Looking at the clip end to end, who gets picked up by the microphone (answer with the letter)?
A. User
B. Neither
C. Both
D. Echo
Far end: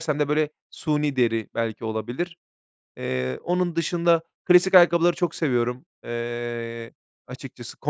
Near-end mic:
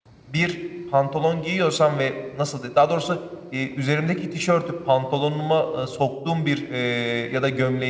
A